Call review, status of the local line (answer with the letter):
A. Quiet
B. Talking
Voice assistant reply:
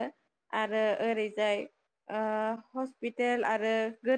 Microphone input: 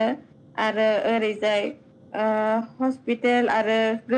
A